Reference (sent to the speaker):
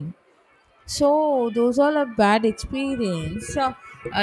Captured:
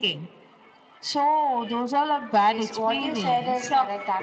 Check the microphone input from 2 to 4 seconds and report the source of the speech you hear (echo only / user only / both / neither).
both